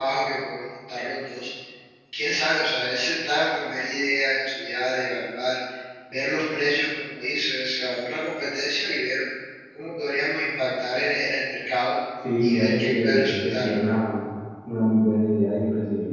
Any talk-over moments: Yes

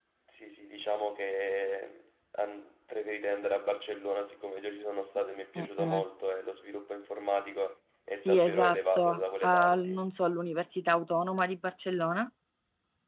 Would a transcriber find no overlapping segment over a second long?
No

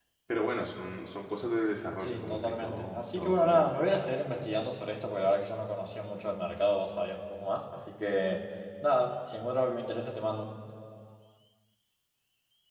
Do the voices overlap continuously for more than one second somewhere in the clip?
Yes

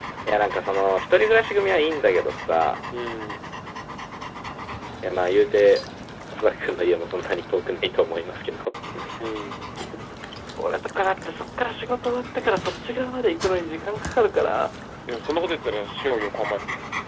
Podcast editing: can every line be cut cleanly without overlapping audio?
Yes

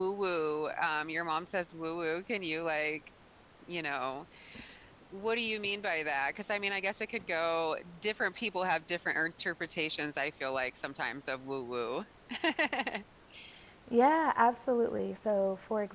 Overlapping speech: No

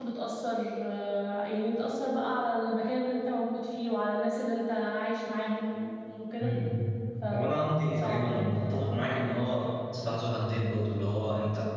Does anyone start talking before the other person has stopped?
Yes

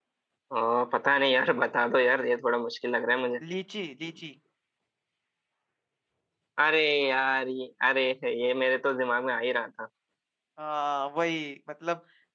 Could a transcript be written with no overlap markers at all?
Yes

